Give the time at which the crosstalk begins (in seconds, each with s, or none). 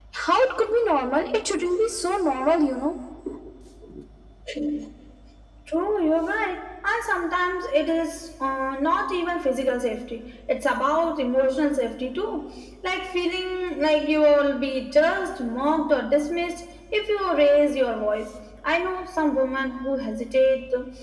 none